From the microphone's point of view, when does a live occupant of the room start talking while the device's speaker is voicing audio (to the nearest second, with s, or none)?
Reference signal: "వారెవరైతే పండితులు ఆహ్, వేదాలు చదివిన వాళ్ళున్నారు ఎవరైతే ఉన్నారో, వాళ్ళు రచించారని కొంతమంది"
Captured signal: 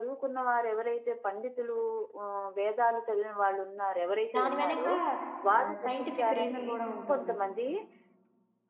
4 s